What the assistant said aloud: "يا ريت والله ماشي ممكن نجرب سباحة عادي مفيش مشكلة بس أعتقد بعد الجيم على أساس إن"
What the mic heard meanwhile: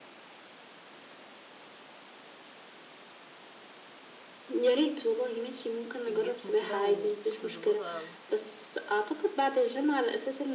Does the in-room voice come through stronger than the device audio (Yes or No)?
No